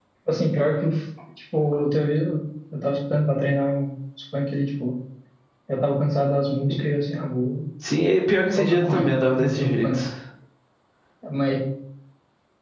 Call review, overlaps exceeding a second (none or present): present